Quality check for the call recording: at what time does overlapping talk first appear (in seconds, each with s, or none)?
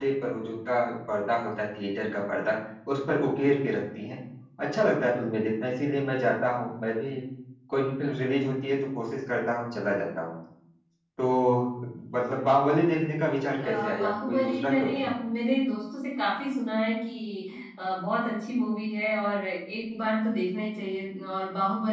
13.6 s